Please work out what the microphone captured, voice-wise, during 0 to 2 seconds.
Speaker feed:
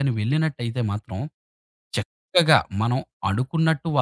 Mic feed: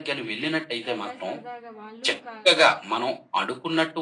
both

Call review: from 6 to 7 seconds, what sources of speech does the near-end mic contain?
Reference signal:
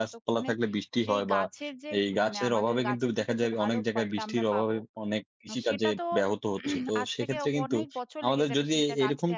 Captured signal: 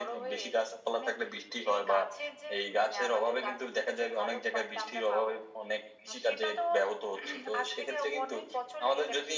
echo only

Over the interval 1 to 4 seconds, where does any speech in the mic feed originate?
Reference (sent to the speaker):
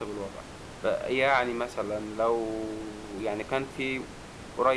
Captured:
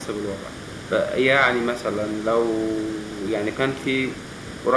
echo only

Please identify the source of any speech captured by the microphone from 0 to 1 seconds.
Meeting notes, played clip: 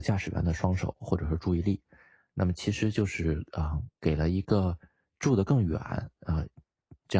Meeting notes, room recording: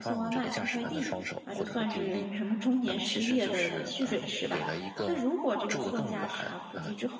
both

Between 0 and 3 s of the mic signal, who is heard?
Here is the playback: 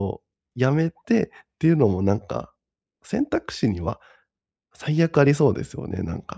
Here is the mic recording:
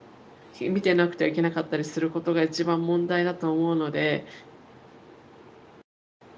user only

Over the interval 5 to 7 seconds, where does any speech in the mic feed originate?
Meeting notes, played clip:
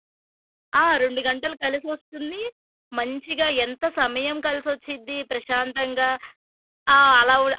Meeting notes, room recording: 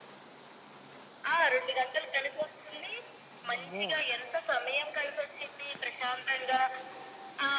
echo only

